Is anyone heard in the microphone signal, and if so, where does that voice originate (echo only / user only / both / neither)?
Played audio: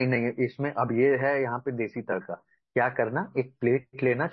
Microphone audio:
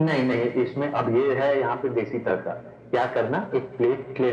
echo only